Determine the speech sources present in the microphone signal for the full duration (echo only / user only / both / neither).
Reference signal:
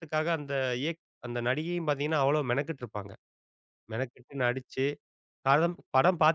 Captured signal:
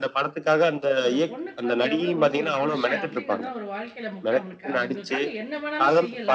both